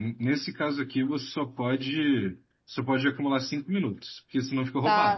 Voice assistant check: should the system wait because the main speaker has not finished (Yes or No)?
No